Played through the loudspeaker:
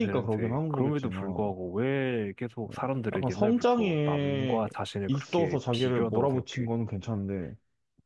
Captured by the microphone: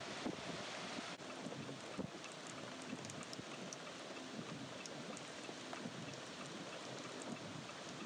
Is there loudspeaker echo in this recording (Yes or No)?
No